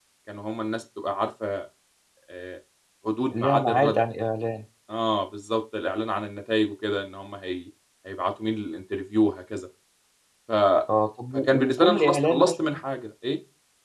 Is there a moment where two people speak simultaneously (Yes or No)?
Yes